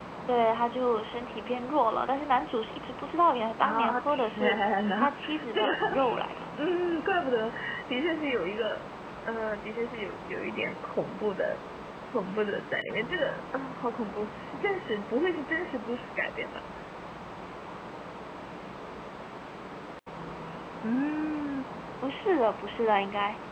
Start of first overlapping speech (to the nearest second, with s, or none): 4 s